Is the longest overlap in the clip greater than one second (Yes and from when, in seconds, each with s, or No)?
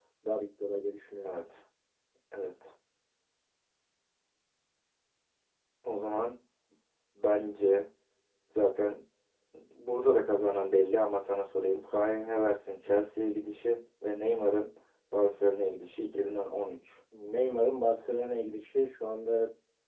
No